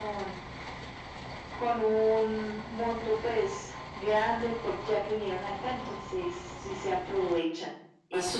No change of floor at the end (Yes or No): No